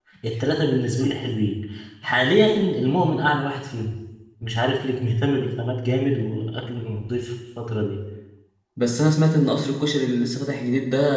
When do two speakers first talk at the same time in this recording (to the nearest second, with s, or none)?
none